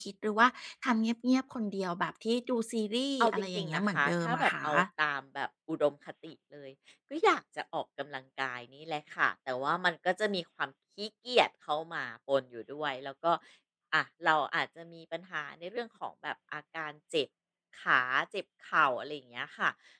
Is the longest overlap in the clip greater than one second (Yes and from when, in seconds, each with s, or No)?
Yes, from 3.2 s